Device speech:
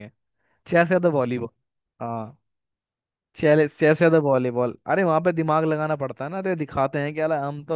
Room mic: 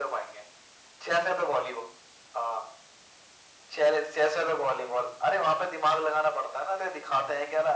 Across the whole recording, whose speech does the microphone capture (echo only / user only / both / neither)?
echo only